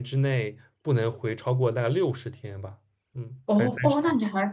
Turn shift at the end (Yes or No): Yes